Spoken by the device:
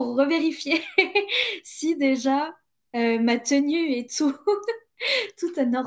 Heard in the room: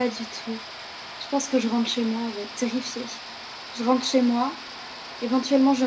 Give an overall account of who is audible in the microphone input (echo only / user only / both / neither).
user only